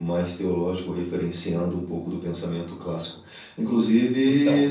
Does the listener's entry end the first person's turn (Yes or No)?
No